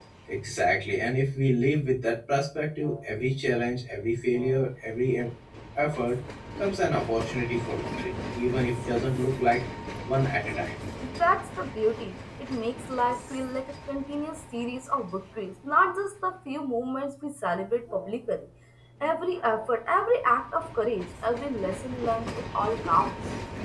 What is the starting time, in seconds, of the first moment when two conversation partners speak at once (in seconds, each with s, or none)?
none